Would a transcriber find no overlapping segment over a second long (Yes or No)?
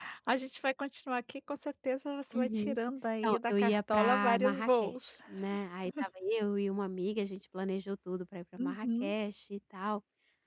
No